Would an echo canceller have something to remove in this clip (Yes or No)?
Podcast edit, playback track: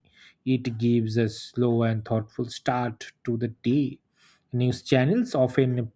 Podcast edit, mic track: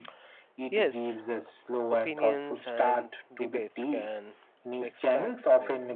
Yes